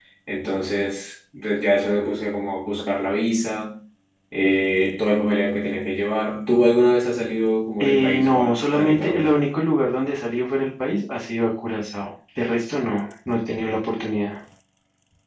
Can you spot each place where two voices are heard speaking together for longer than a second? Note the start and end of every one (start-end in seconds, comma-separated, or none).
7.8-9.3